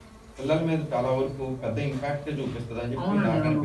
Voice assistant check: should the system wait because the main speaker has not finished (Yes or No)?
No